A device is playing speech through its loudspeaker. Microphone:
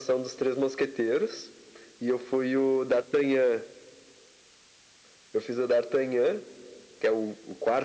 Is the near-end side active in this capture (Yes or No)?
No